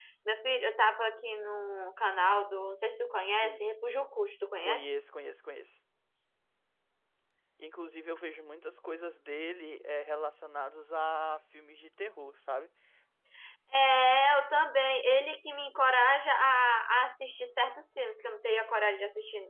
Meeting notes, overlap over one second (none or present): none